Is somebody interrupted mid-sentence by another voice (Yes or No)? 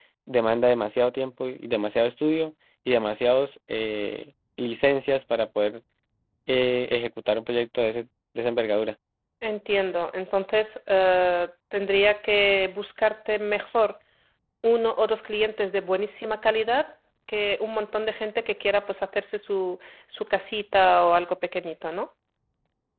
No